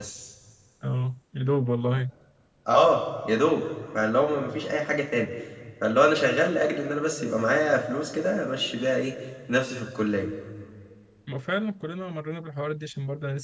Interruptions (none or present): none